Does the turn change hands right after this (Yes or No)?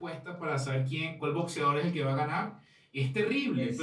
No